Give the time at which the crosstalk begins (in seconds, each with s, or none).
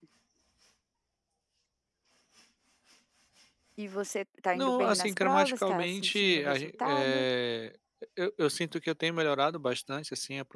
4.5 s